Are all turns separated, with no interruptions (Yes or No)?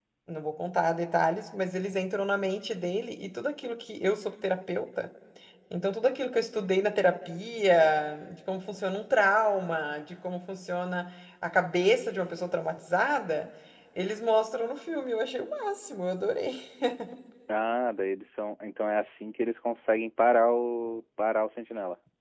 Yes